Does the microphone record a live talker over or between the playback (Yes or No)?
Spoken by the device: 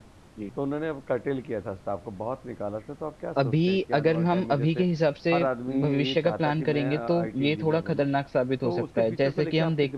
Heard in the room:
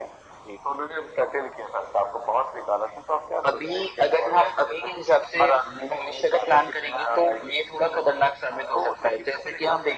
No